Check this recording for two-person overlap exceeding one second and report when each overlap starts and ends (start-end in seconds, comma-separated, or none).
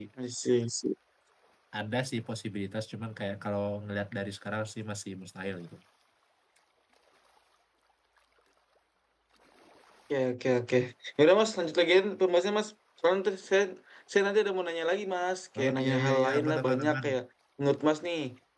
15.6-17.1